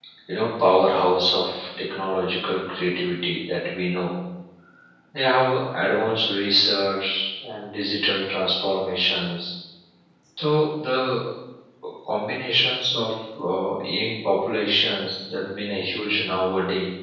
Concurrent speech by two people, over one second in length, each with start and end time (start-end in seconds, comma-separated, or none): none